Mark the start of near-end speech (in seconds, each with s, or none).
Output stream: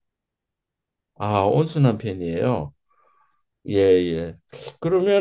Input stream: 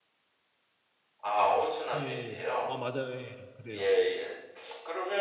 2.0 s